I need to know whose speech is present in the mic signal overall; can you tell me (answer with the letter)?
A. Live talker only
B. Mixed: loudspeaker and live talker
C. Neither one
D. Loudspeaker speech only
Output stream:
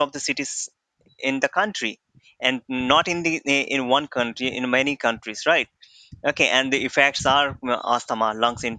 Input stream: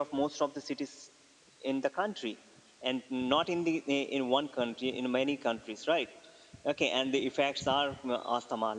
D